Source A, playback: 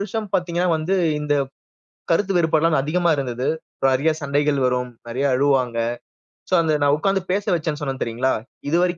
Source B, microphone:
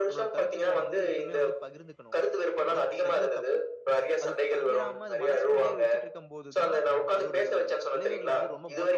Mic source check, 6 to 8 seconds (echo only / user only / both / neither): both